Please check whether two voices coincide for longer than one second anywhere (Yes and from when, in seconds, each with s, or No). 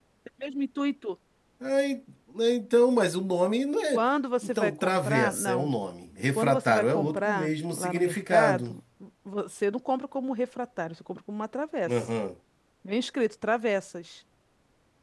Yes, from 4.4 s